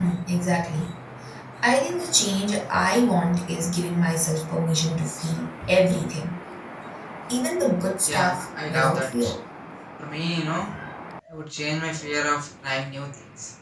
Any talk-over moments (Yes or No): Yes